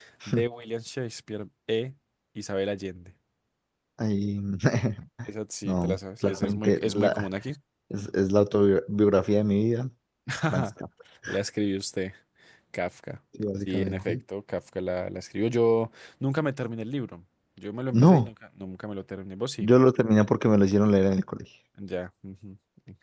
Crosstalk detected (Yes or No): Yes